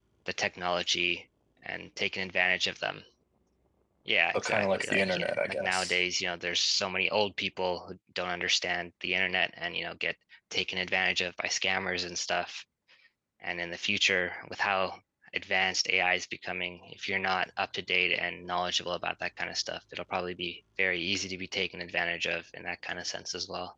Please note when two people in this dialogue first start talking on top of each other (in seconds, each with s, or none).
4.3 s